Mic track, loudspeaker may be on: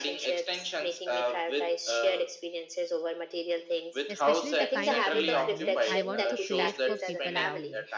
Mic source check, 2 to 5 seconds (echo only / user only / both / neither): both